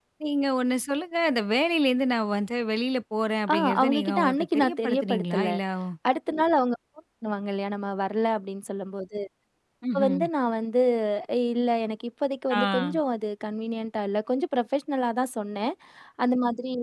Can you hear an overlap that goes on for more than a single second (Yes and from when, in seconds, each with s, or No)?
Yes, from 3.5 s